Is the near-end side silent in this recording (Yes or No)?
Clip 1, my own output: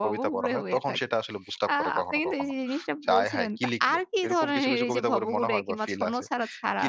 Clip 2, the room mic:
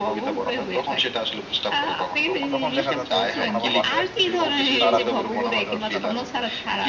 No